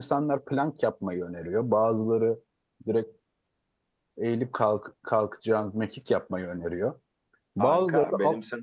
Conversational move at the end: taking over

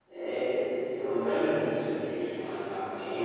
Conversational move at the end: taking over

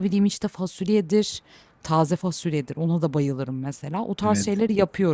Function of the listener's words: listening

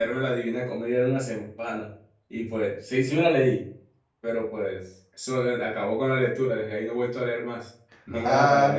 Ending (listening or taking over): taking over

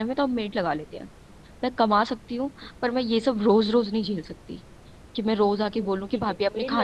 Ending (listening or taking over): taking over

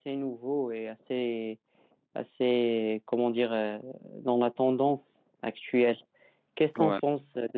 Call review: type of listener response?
listening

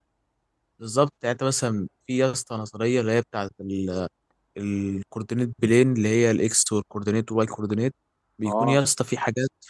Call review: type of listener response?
listening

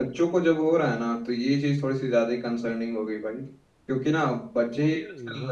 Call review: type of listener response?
listening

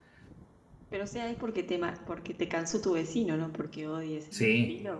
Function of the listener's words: taking over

